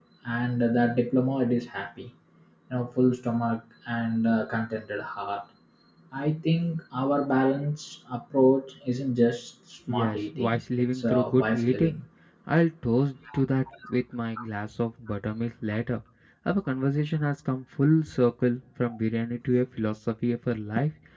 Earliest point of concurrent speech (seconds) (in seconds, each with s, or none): 9.9 s